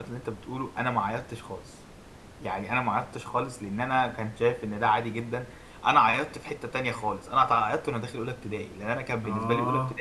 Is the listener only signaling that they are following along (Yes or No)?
Yes